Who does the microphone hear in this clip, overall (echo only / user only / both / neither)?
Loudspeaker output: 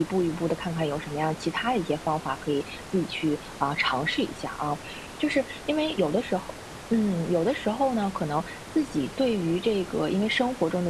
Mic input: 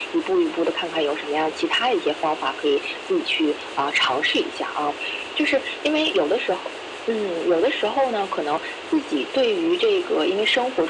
echo only